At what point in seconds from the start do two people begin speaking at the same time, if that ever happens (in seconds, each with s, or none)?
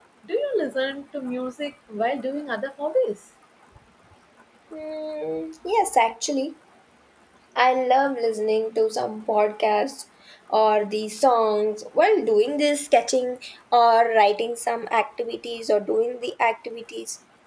none